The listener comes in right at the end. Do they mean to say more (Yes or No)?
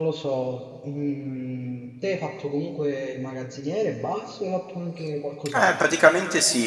Yes